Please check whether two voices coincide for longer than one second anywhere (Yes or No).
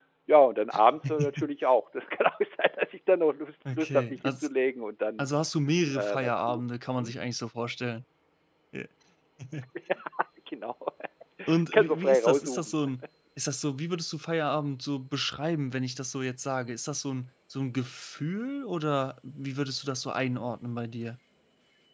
Yes